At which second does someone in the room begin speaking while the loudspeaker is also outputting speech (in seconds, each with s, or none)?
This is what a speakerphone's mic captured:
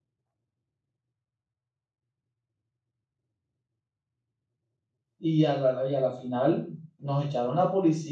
5.2 s